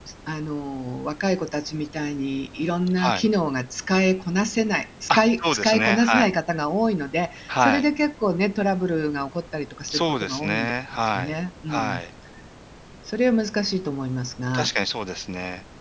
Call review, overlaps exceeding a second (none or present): present